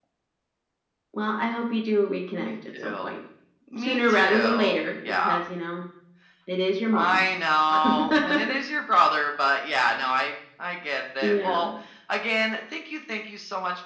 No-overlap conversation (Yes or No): No